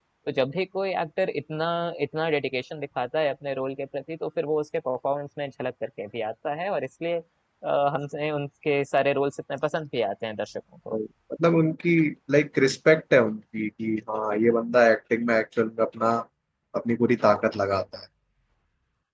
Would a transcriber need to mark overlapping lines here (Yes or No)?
No